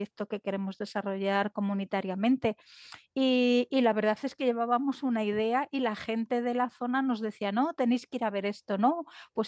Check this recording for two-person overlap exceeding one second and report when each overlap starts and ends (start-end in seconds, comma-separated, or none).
none